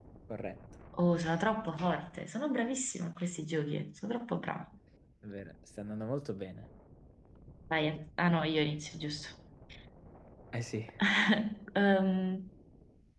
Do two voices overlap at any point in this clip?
No

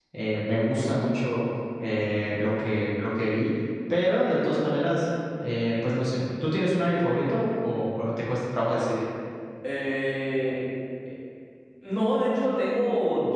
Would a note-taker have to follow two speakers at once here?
No

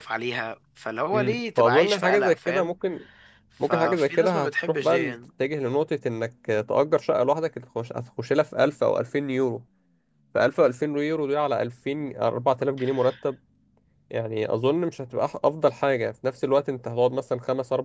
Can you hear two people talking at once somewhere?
Yes, from 1.1 s

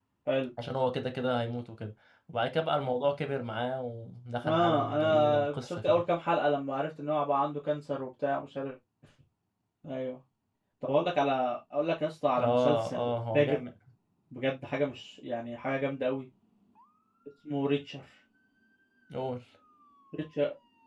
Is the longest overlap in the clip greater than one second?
Yes, from 4.4 s

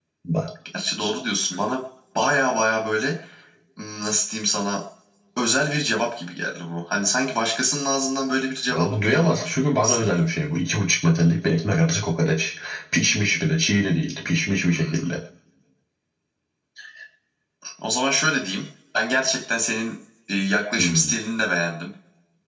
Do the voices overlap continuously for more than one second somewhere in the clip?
Yes, from 8.8 s

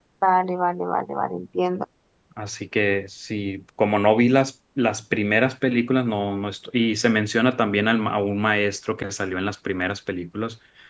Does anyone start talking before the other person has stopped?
No

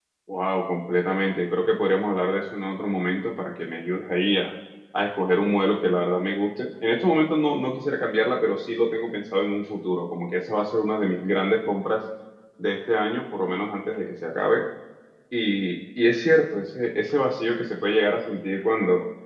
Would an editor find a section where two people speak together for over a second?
No

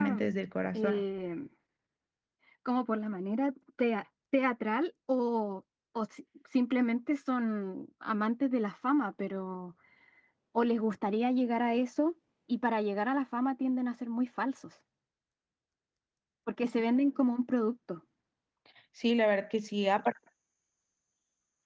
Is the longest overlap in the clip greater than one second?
No

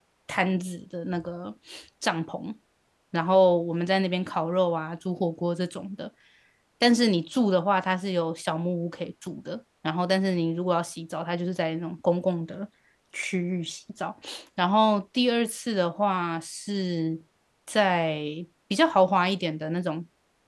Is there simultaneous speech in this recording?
No

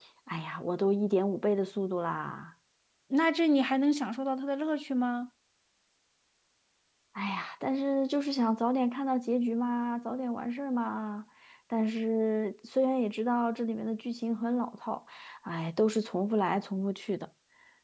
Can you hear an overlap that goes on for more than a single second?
No

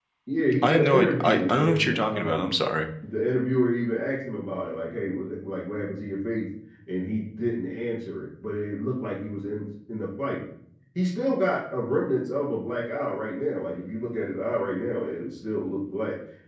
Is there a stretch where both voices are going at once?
Yes, from 0.6 s

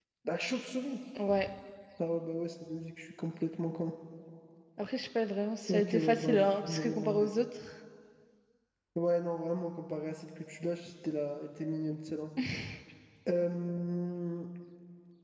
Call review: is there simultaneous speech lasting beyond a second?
Yes, from 5.7 s

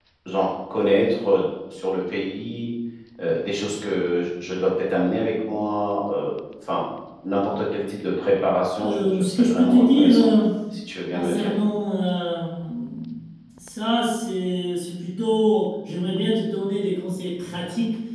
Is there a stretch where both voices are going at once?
Yes, from 8.8 s

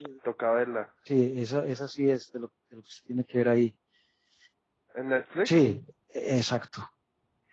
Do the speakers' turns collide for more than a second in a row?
No

